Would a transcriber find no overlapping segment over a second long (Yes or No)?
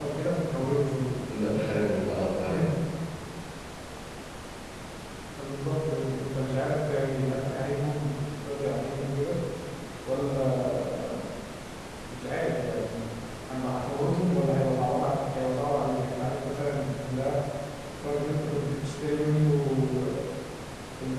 Yes